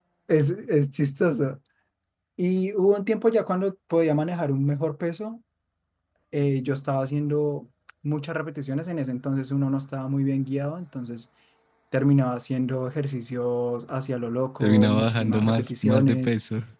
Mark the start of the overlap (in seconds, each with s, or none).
14.6 s